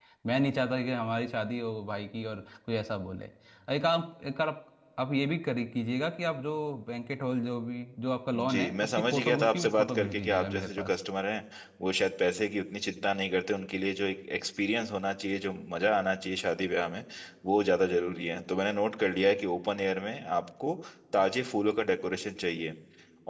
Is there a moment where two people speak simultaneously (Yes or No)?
Yes